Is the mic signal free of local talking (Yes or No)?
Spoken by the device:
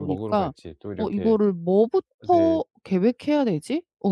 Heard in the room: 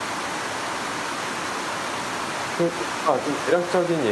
No